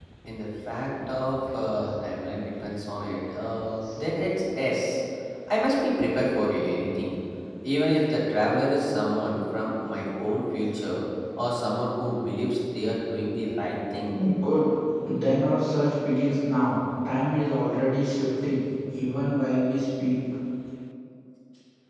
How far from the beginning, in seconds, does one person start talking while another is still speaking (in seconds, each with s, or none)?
none